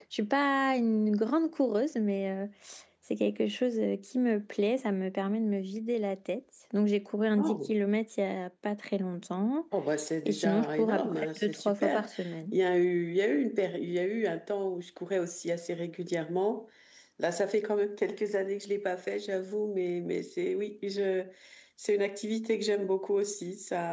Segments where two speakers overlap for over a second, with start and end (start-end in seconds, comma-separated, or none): 10.3-12.1